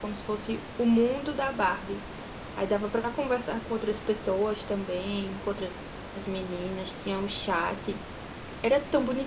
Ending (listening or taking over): listening